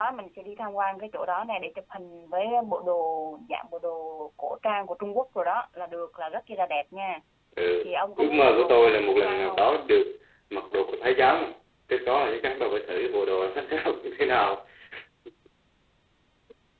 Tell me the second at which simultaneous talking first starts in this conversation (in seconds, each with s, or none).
7.8 s